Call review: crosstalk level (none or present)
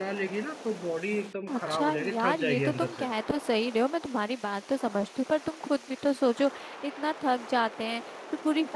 present